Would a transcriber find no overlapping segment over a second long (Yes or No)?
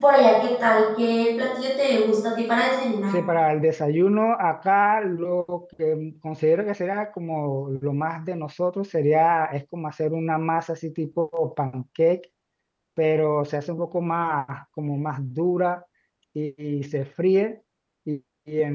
Yes